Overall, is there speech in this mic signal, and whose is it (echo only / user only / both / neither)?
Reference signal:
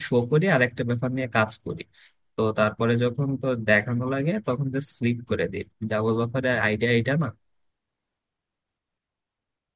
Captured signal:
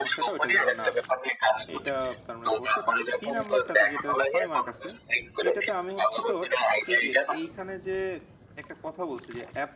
both